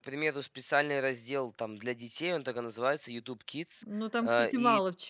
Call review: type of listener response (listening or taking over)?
taking over